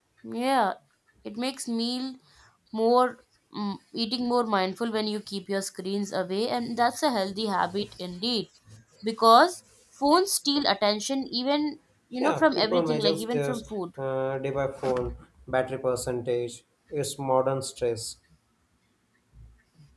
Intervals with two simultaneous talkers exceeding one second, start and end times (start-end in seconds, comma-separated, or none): 12.2-13.5